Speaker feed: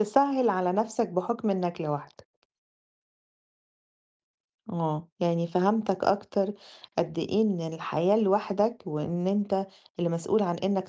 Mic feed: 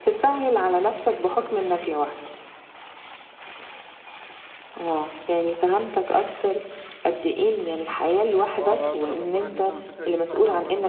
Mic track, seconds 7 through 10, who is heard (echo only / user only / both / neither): both